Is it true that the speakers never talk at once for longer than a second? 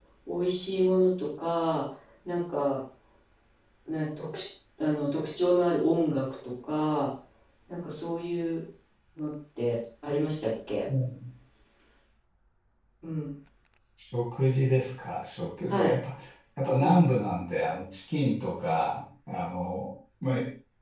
Yes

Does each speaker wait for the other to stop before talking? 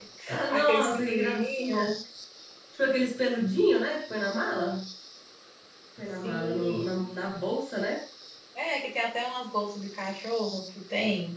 No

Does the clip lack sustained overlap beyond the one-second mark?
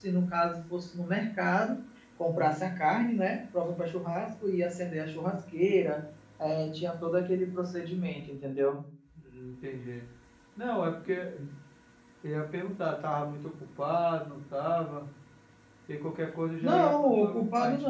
No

